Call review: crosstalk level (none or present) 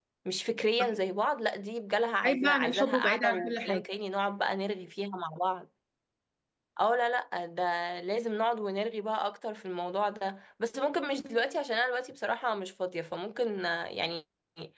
present